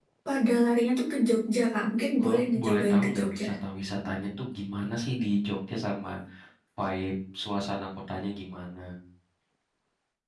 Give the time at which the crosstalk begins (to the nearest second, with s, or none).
2 s